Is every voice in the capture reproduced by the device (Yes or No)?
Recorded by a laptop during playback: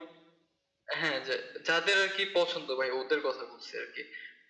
Yes